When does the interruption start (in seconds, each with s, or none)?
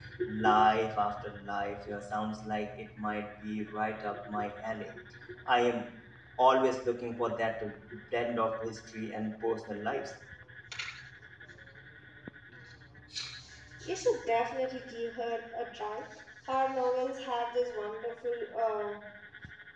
none